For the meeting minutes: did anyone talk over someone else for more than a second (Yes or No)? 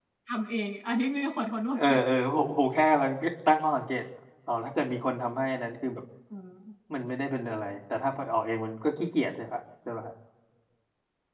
No